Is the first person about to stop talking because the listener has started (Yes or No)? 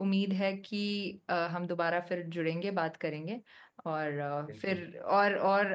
No